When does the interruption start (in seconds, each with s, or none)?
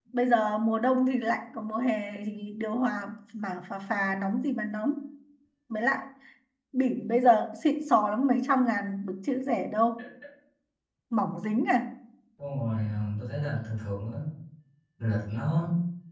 none